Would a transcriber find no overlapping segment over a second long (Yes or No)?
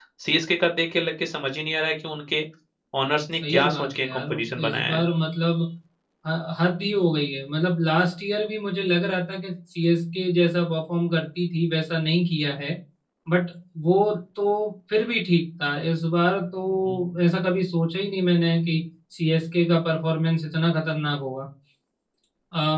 No